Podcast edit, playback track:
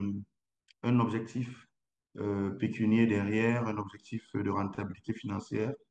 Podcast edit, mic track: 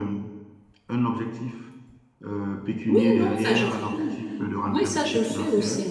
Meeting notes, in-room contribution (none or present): present